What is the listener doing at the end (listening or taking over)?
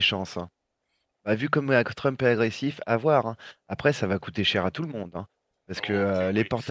taking over